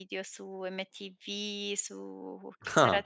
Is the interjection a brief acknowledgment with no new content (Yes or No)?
Yes